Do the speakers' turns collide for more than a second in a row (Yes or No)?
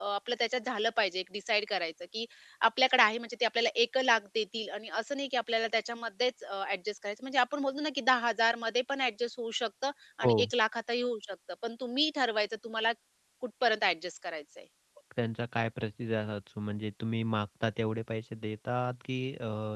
No